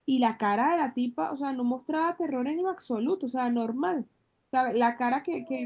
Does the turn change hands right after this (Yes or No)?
No